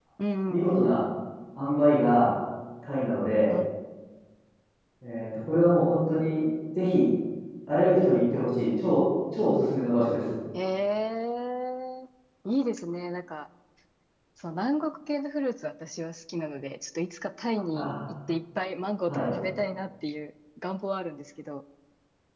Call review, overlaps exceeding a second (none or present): none